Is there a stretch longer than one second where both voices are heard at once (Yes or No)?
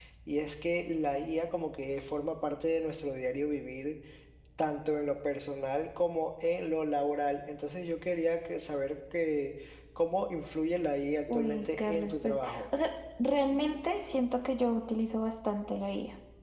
Yes